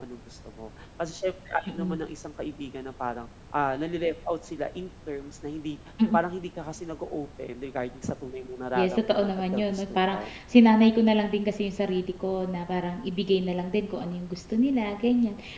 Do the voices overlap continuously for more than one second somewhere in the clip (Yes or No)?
Yes